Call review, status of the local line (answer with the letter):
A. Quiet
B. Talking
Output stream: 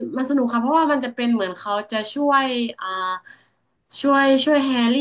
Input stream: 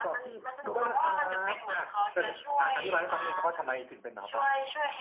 B